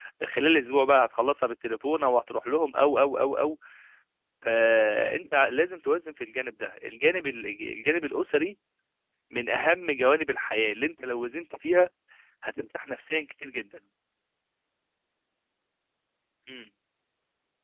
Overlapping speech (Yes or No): No